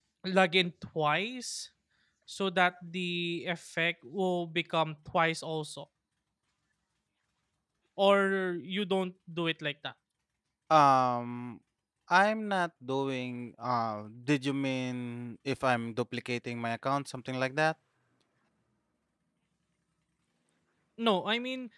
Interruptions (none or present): none